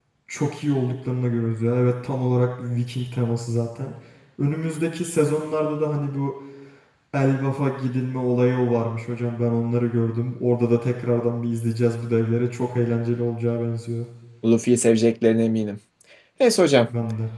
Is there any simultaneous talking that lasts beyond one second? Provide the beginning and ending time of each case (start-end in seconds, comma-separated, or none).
none